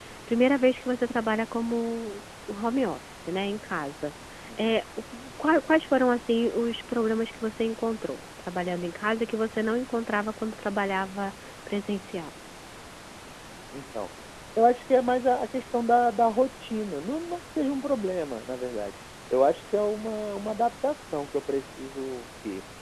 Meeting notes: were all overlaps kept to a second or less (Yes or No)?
Yes